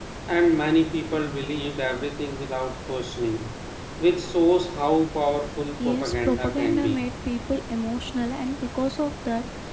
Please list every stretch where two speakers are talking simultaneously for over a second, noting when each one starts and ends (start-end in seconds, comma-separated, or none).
5.8-7.1